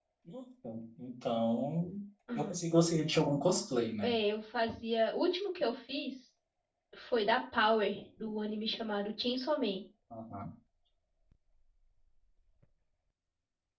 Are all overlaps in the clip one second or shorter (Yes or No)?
Yes